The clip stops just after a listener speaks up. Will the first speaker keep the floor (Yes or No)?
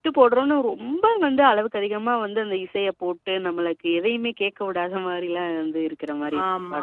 No